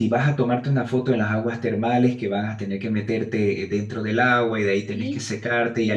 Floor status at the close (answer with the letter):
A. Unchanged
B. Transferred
A